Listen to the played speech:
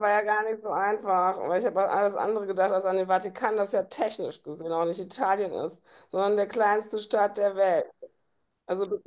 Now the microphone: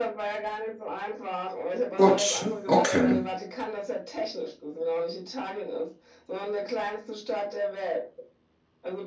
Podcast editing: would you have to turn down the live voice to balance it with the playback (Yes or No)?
Yes